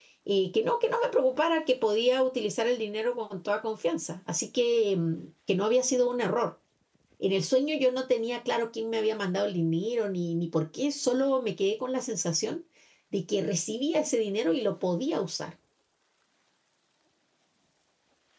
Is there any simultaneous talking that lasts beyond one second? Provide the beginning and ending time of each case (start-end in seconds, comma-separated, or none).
none